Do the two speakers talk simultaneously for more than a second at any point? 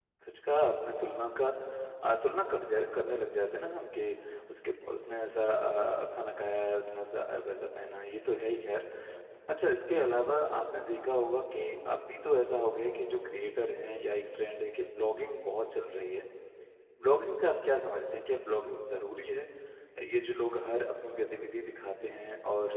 No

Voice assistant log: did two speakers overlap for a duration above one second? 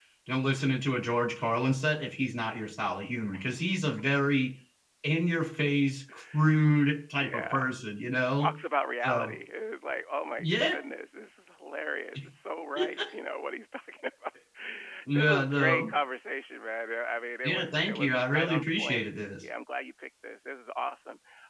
Yes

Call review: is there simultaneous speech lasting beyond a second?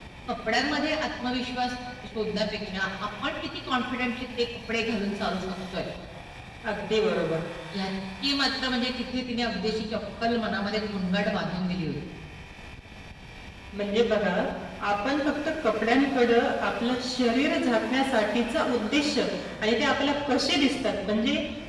No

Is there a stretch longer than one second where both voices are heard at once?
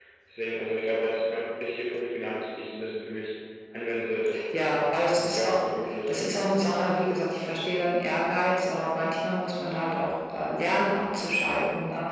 No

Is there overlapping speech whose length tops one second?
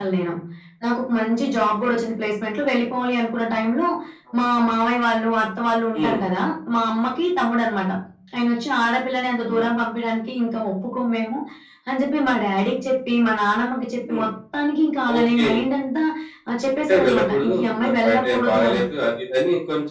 Yes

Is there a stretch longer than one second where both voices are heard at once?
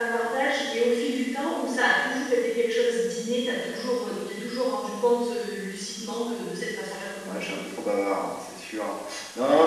No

